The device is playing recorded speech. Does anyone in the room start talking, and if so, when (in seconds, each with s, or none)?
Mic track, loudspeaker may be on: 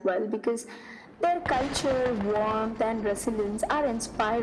none